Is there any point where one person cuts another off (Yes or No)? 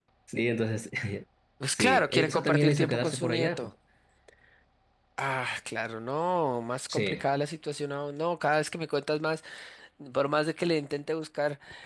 Yes